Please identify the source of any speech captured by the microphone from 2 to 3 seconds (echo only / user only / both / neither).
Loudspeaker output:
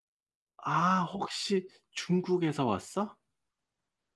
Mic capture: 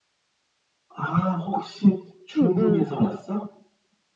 both